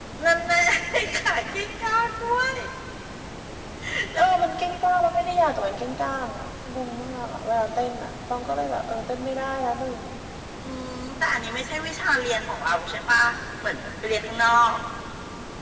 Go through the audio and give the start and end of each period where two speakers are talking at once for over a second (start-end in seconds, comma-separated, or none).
none